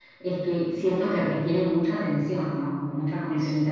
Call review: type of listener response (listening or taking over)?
listening